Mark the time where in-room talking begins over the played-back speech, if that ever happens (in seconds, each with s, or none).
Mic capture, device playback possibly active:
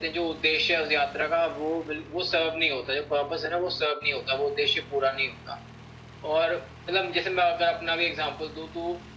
none